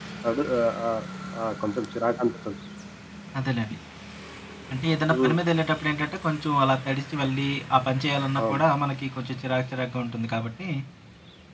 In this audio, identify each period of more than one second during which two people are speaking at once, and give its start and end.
none

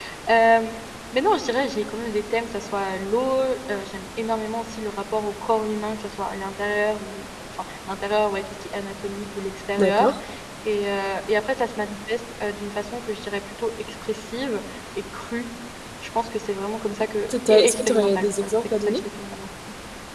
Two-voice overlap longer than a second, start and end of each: 17.5-19.0

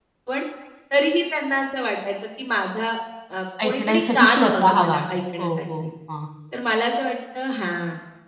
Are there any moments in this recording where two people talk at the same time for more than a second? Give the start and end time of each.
3.6-5.0

